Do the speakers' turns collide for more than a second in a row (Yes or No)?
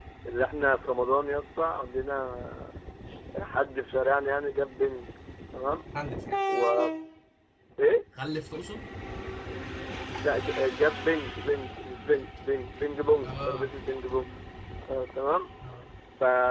No